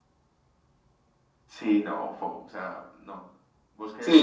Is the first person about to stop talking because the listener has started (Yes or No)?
Yes